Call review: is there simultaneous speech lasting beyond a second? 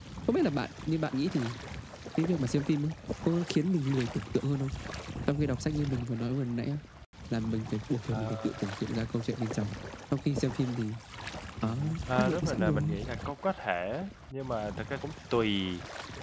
Yes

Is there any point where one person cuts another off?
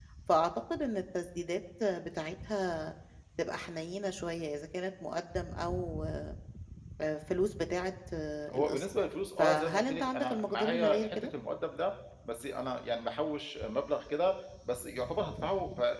Yes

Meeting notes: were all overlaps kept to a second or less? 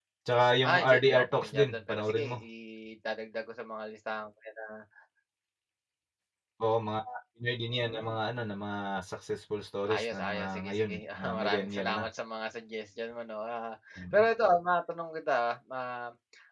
No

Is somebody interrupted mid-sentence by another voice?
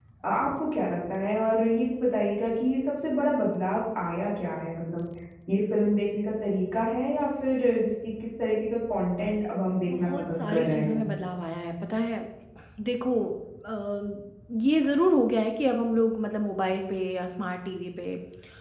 Yes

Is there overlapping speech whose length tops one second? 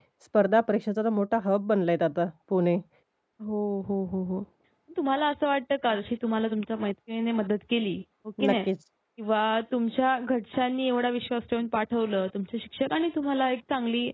No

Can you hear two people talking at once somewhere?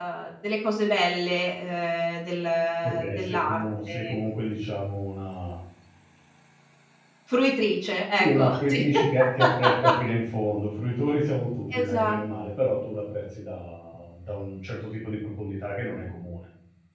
Yes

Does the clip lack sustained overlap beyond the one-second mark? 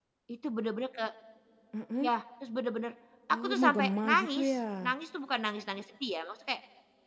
No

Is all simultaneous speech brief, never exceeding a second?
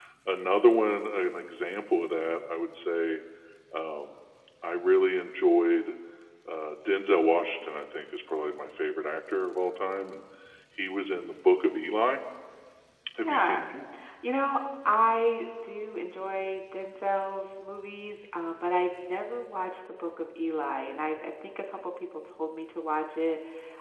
Yes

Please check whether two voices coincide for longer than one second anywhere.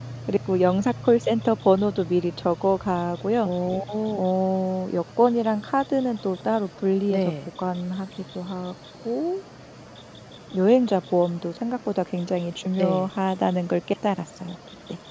No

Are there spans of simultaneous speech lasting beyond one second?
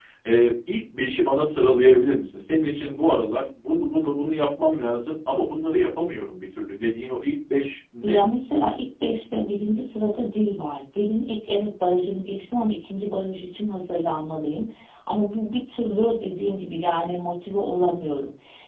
No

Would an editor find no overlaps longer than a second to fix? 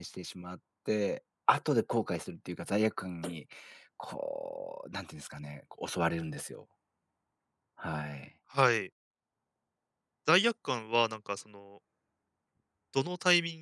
Yes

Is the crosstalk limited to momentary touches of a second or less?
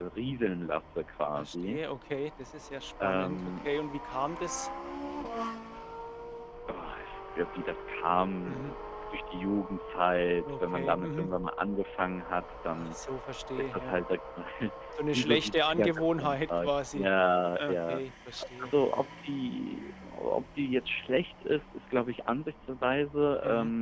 No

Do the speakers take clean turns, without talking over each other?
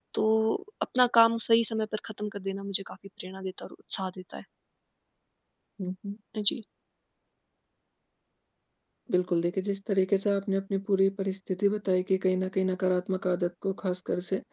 Yes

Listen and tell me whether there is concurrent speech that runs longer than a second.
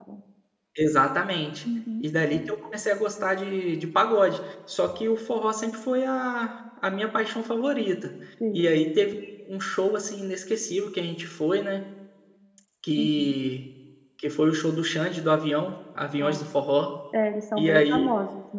No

